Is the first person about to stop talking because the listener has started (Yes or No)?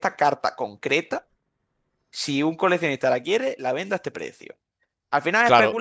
No